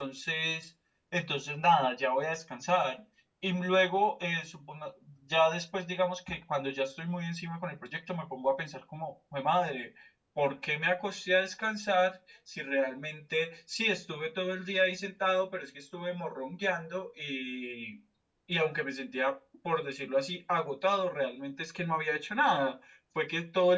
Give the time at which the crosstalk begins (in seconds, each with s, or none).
none